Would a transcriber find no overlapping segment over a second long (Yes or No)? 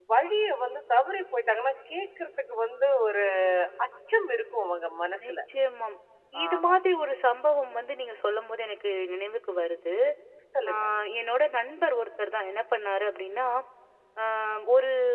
Yes